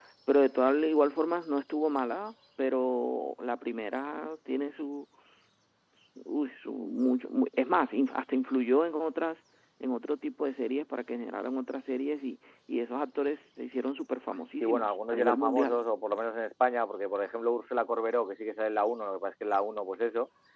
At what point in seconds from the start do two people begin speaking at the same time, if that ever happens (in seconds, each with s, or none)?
14.6 s